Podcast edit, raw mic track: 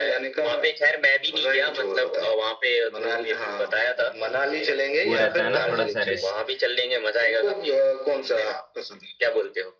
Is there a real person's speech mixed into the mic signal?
Yes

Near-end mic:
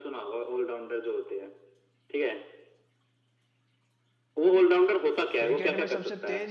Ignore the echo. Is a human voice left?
Yes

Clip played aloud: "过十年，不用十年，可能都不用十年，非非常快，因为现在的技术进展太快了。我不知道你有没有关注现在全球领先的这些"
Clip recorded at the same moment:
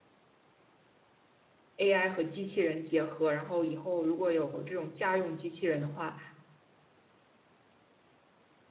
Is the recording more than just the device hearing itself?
Yes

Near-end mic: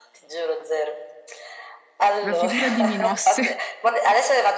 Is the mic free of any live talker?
No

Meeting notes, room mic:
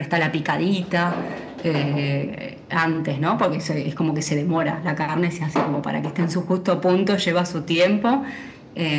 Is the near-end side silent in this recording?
Yes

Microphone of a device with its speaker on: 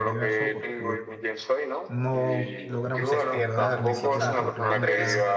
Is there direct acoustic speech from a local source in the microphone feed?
Yes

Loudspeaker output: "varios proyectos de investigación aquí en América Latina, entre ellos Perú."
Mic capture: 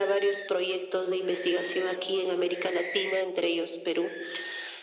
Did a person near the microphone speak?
No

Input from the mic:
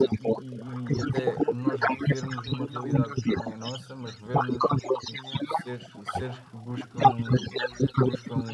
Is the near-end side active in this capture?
Yes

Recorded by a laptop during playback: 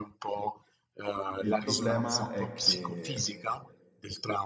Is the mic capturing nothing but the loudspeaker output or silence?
No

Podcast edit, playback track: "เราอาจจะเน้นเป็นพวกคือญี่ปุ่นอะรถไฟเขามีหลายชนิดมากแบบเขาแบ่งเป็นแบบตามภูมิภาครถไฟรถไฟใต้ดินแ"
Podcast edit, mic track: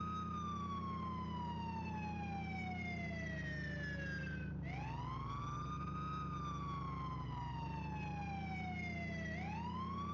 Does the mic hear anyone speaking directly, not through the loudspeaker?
No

